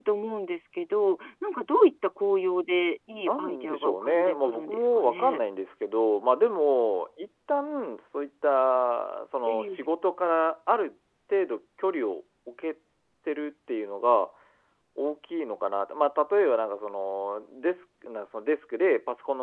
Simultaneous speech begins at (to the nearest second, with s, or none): 3 s